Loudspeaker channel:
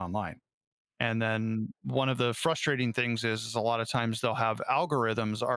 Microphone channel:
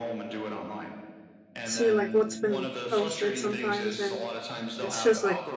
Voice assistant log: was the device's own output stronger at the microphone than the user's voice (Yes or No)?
No